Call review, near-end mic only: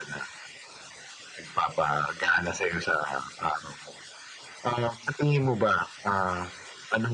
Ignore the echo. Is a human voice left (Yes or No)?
No